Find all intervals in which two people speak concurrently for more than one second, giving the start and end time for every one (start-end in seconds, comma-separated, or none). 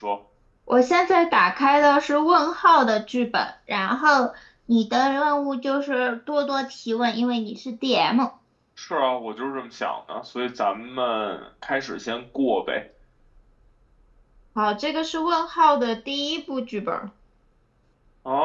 none